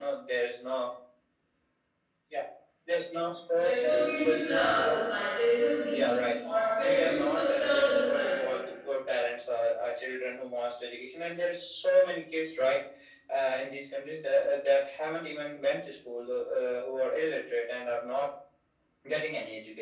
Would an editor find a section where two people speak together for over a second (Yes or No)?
Yes